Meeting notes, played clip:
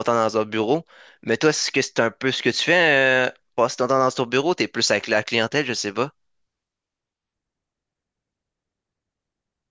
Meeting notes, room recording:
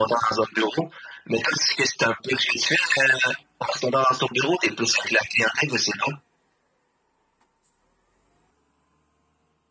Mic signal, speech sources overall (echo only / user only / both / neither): echo only